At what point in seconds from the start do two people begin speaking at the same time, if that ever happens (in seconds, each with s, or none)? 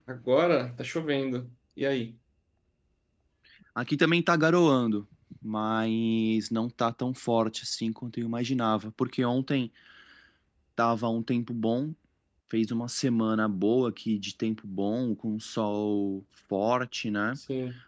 none